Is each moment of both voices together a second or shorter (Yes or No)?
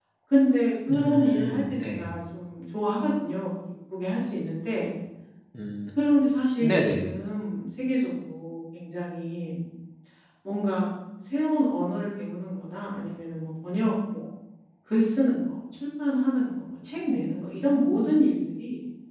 No